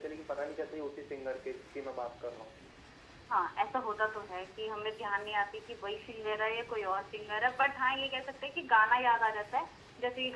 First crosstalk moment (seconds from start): none

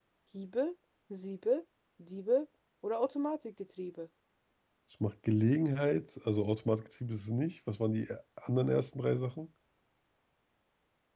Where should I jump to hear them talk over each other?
none

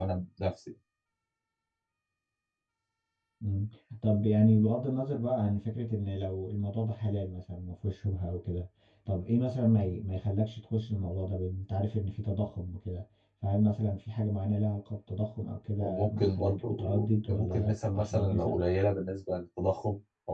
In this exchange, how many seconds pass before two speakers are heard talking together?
16 s

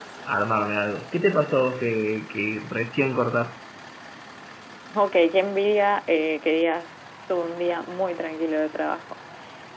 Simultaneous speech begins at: none

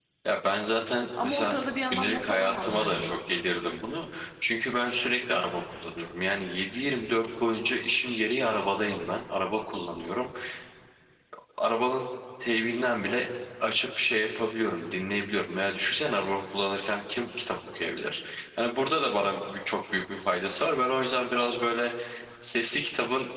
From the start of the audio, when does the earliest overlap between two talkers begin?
1 s

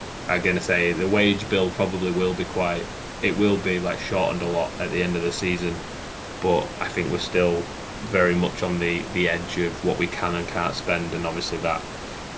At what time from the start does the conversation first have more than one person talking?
none

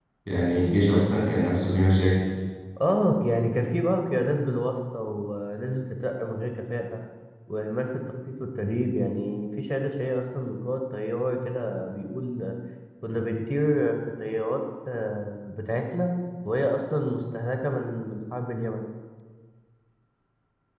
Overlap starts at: none

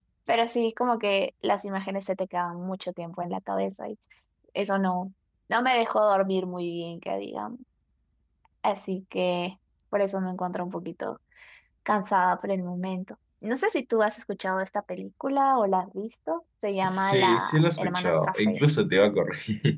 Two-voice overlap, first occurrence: 17 s

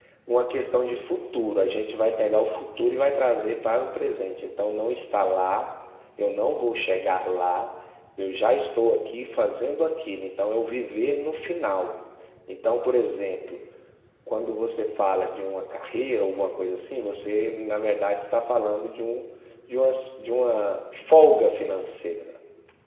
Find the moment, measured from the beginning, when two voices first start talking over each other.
none

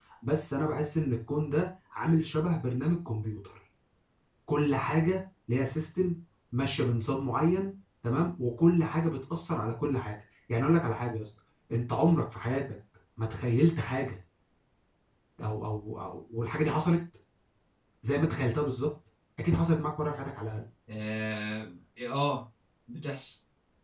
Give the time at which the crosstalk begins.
none

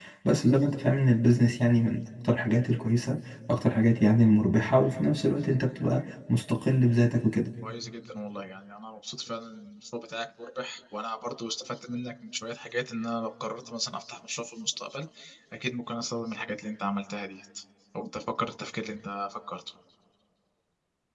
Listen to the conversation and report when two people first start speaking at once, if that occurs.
none

